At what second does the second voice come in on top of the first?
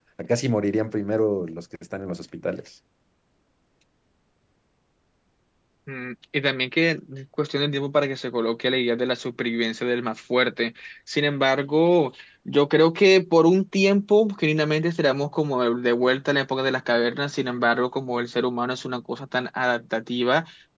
none

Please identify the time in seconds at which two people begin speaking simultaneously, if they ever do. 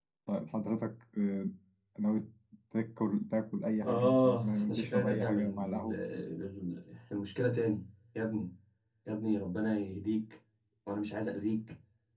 4 s

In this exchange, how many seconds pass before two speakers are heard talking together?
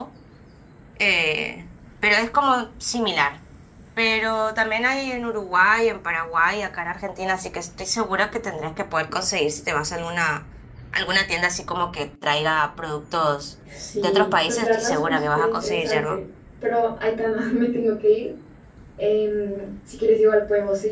14 s

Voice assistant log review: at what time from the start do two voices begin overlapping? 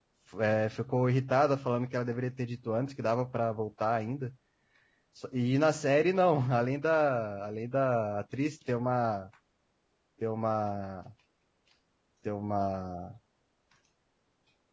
none

